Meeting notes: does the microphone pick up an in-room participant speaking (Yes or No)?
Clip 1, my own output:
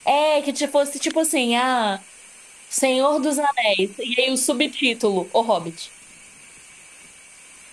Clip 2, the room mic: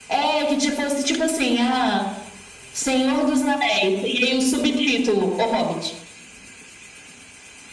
No